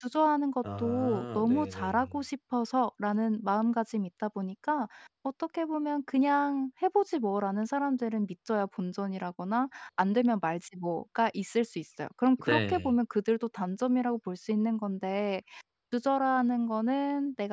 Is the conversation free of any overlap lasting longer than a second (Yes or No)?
No